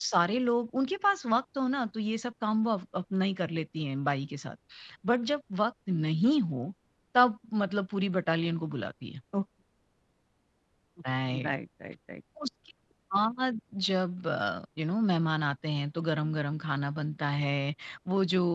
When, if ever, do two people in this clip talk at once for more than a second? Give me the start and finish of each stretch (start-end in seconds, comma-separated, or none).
none